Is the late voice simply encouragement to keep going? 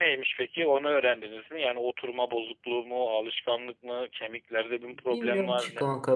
No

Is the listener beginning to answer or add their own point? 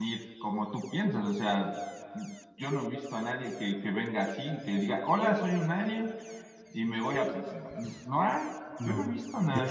Yes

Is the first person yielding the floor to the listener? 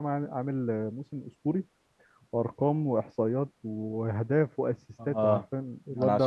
Yes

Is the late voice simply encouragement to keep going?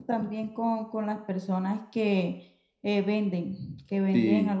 Yes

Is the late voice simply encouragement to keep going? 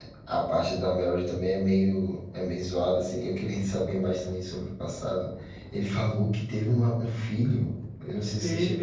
No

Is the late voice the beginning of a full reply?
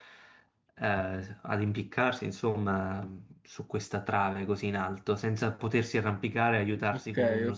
Yes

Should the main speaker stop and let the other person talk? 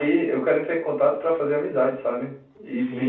Yes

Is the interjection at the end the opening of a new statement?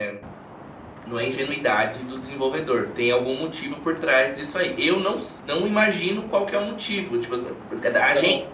No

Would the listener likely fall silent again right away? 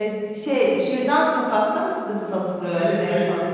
No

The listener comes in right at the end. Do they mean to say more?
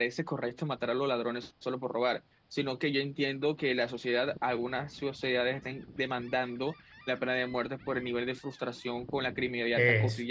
No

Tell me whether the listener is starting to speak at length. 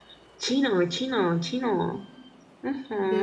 Yes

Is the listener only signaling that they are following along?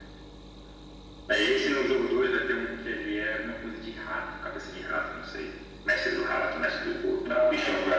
Yes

